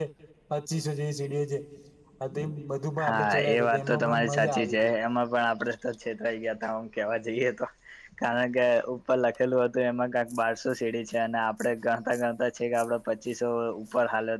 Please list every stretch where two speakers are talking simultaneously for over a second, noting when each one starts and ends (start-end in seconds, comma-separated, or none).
3.0-4.9